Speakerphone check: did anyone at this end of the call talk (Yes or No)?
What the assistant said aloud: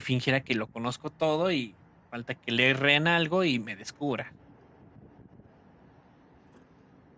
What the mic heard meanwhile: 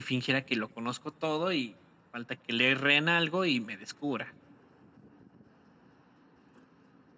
No